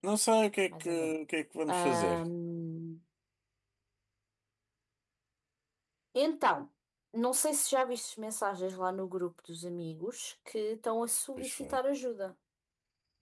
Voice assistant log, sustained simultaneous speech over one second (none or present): none